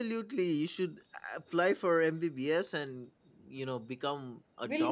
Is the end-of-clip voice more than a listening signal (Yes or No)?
Yes